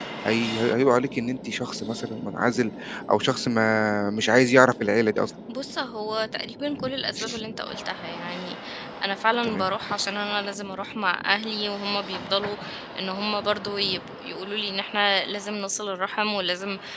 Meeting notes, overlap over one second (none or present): none